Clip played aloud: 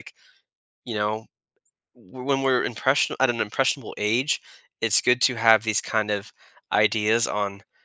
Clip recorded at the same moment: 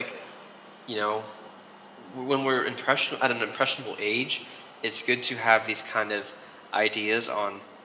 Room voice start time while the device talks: none

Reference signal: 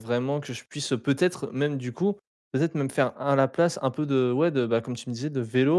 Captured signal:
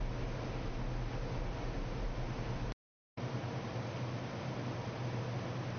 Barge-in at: none

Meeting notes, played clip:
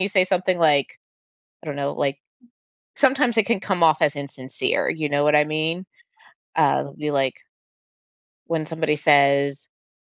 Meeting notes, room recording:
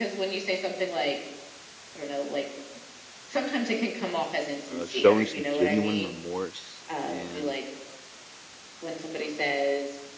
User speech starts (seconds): 5 s

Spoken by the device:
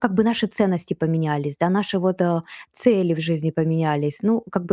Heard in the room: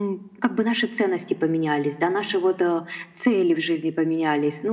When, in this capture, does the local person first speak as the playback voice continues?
none

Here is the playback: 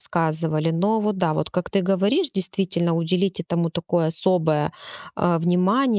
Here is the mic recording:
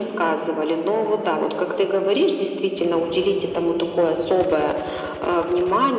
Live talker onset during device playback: none

